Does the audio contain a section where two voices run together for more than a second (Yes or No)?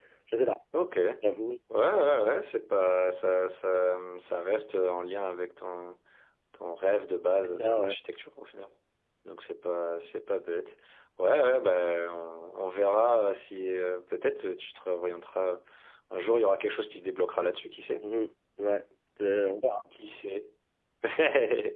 No